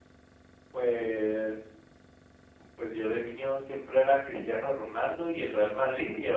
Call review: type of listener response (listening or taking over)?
listening